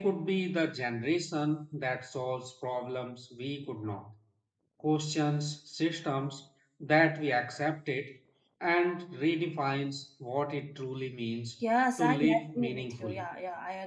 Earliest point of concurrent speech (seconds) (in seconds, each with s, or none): 12.0 s